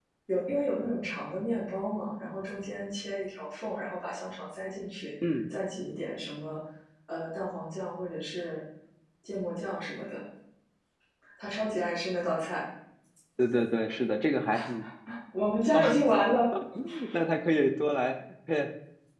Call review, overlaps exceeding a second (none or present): none